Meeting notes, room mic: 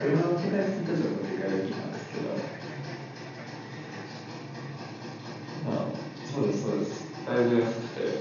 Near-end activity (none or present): present